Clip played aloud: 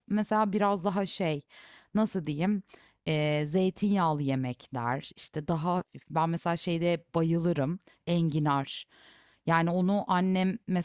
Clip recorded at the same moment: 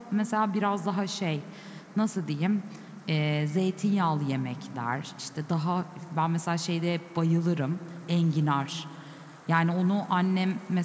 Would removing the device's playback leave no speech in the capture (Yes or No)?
Yes